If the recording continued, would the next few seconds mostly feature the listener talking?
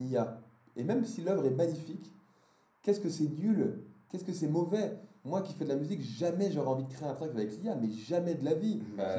Yes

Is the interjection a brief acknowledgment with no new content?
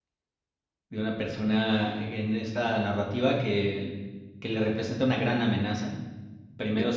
Yes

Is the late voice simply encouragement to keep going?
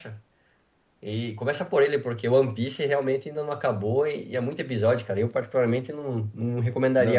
No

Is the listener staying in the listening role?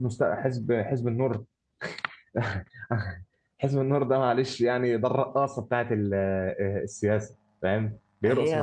No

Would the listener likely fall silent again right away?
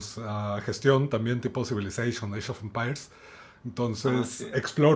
Yes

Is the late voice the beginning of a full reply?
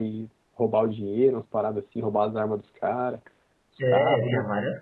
Yes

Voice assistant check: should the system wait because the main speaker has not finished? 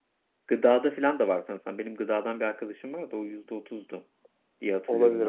No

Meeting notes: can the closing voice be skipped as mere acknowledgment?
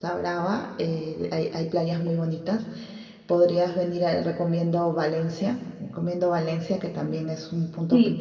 No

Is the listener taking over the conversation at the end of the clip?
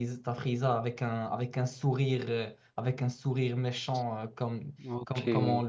No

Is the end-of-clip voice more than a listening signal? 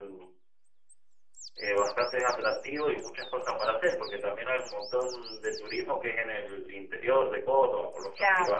Yes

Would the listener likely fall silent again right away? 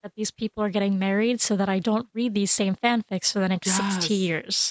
No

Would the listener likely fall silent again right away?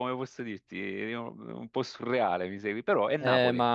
No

